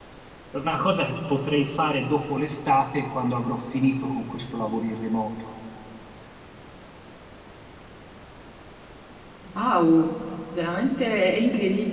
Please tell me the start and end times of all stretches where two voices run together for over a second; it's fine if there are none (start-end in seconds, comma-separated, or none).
none